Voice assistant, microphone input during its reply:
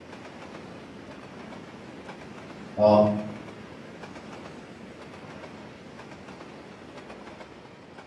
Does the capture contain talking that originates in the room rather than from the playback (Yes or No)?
Yes